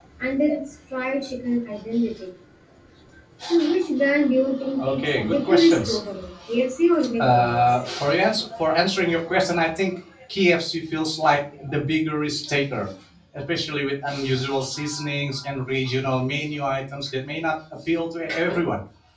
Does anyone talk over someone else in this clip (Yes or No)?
Yes